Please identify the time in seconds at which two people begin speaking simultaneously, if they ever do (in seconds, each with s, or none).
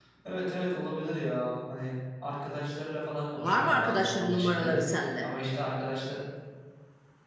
3.4 s